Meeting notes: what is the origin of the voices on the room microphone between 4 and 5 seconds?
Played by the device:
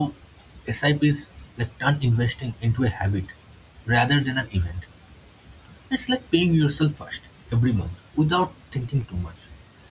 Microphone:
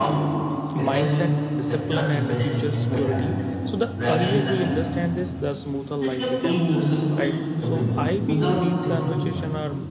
both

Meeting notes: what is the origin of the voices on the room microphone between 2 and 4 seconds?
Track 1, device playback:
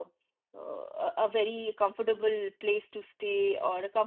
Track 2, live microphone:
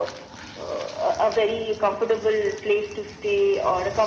echo only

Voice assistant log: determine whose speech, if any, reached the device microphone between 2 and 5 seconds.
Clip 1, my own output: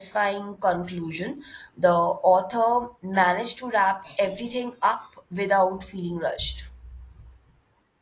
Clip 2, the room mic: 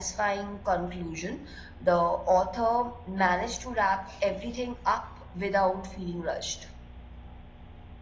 echo only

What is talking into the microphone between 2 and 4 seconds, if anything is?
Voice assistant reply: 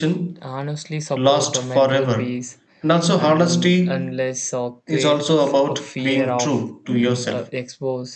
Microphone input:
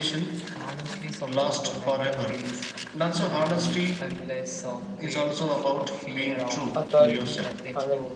echo only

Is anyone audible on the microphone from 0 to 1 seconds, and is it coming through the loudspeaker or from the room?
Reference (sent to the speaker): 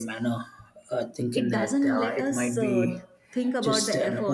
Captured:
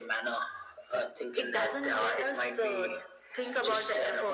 echo only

